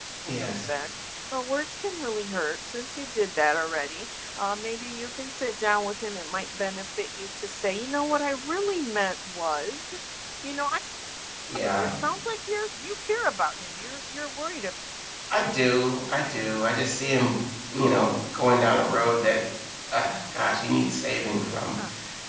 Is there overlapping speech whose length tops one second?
No

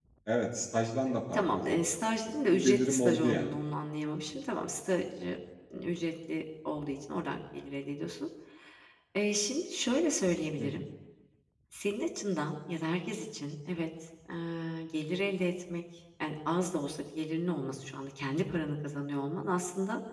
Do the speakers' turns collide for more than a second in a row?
Yes, from 1.3 s

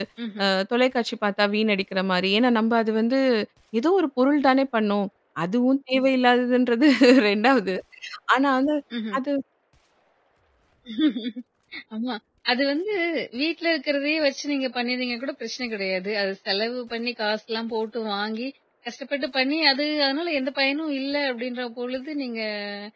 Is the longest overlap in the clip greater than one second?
No

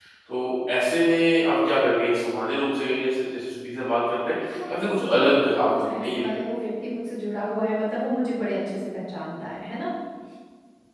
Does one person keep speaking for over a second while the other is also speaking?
Yes, from 4.4 s

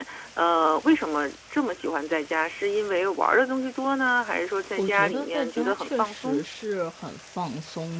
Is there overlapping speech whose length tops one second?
Yes, from 4.8 s

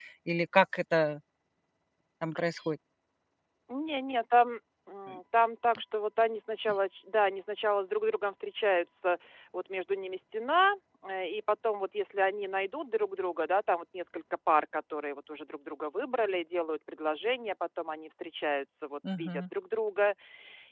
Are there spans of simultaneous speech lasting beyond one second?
No

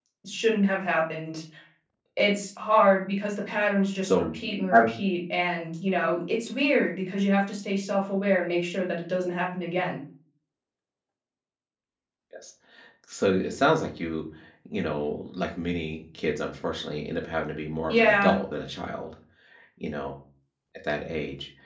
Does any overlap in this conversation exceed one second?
No

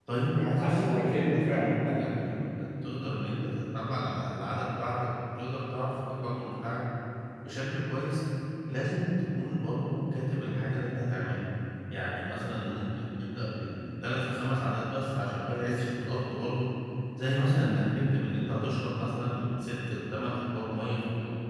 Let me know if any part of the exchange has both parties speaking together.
Yes, from 0.6 s

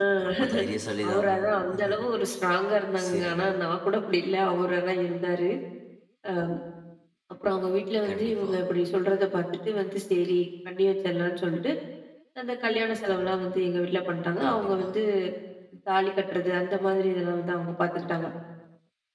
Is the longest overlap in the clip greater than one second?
No

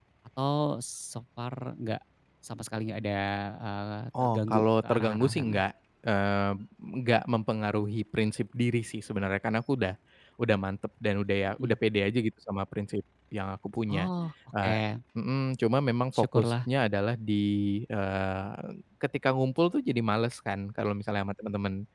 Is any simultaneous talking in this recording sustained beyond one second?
Yes, from 4.2 s

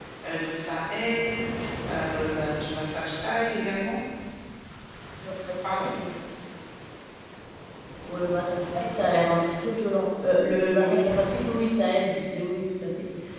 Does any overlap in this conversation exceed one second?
No

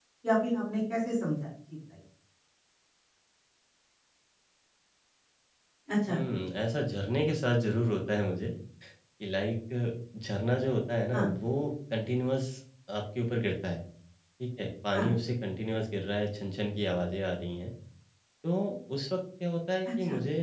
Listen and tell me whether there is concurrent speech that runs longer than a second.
No

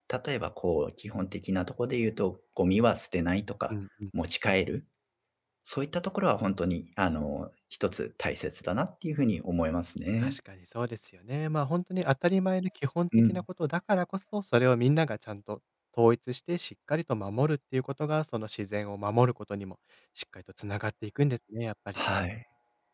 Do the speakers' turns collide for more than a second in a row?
No

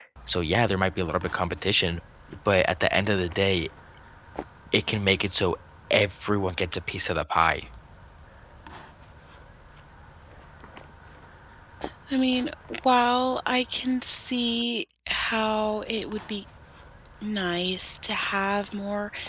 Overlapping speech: No

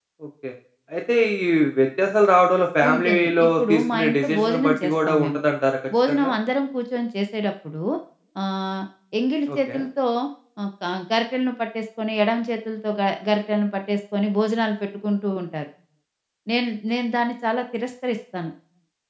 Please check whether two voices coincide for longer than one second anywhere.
Yes, from 2.9 s

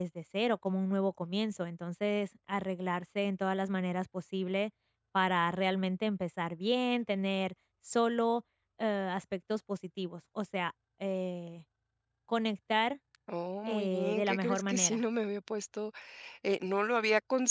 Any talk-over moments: Yes, from 13.7 s

